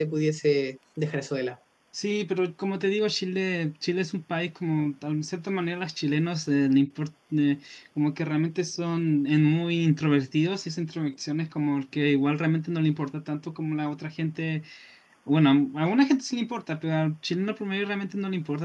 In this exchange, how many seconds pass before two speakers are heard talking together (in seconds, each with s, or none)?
none